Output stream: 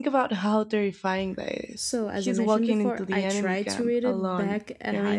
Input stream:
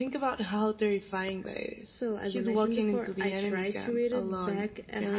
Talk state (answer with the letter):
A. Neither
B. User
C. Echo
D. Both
C